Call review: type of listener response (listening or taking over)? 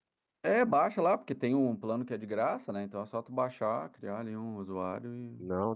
taking over